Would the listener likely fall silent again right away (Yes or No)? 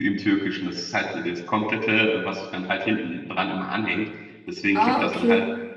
Yes